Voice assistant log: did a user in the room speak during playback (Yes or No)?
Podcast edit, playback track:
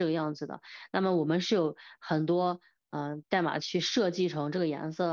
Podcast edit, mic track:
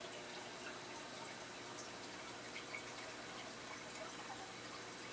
No